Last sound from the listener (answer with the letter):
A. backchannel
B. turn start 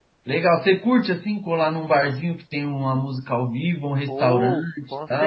B